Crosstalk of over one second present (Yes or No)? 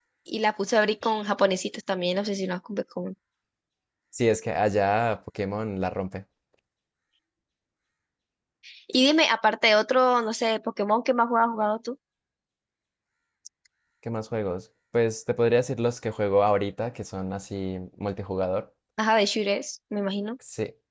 No